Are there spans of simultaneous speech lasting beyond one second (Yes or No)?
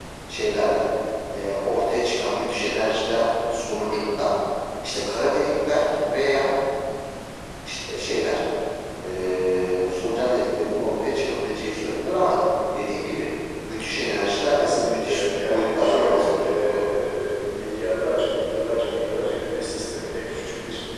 Yes